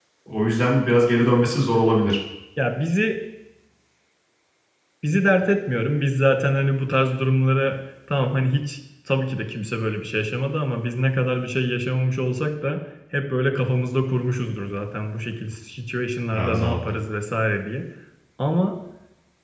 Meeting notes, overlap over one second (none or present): none